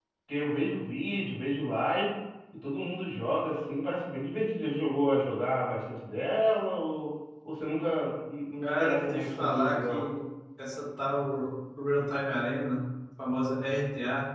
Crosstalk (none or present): present